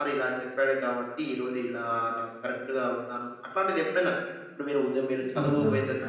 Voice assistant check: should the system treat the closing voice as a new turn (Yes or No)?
Yes